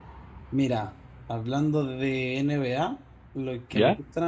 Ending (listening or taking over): listening